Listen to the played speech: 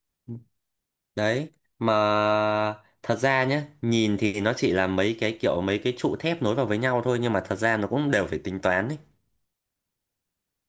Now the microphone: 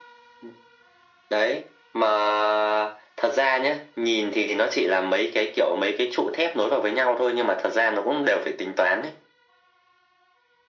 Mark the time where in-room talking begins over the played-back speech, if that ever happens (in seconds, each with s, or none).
none